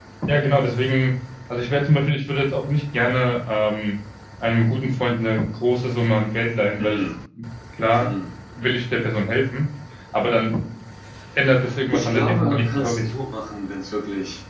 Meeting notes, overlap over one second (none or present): present